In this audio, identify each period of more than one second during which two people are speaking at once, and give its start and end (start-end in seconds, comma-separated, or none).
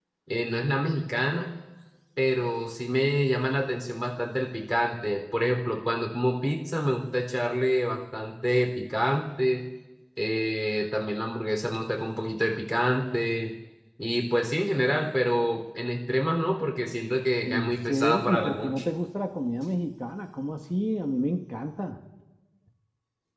17.4-18.8